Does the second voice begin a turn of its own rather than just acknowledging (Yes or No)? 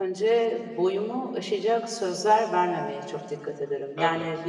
No